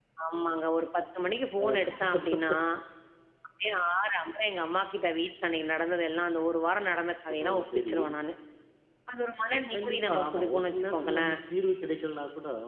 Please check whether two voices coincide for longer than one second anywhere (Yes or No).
Yes